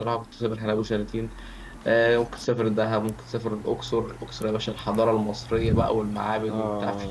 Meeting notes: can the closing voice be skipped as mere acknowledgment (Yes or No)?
Yes